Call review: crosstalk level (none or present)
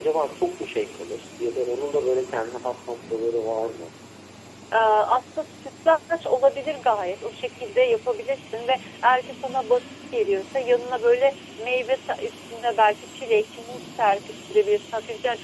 none